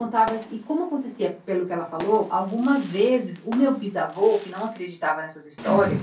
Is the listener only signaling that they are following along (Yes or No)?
Yes